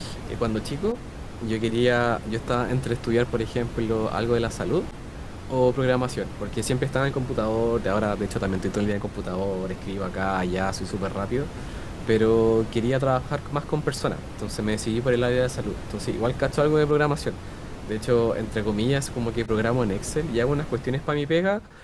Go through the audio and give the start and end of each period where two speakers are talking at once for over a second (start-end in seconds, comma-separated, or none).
none